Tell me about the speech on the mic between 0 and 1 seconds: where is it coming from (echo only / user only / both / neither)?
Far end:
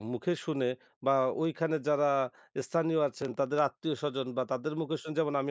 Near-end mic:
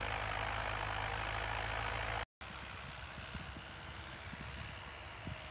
neither